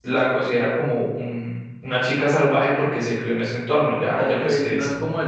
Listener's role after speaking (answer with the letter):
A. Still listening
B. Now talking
B